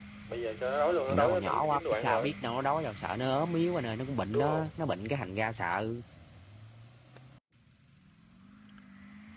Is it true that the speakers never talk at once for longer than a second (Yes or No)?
No